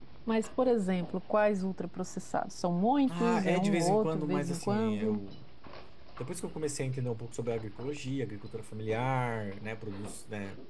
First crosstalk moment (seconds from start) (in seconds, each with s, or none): 3.1 s